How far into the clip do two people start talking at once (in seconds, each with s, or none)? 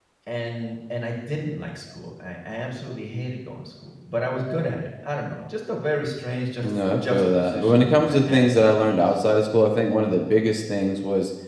6.6 s